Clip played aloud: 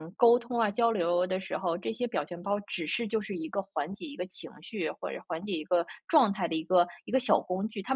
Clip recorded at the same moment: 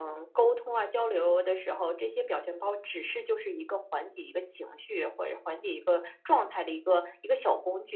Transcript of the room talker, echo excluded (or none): none